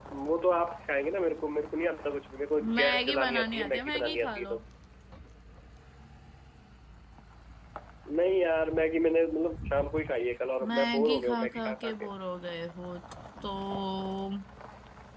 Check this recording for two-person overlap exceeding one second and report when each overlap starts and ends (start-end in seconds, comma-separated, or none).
2.8-4.5, 10.7-12.1